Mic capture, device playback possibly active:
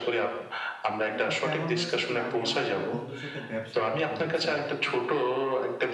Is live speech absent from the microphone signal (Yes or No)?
No